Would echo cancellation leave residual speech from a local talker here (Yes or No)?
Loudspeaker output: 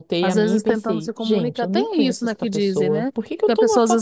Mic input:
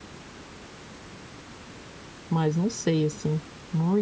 Yes